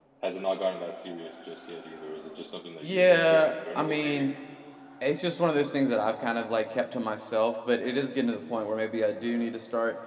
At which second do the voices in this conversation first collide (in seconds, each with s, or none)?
2.8 s